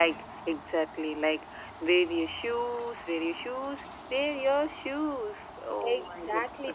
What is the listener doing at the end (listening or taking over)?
taking over